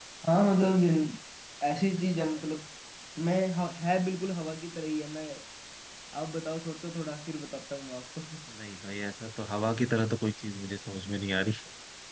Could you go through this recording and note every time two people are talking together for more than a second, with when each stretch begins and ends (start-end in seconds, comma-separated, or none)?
none